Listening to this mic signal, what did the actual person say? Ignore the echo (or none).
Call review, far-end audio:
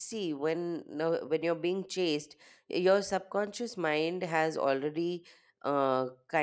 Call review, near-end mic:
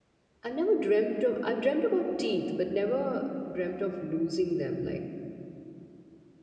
I've never dreamt of I've dreamt about teeth, but never dreamt of losing them. Like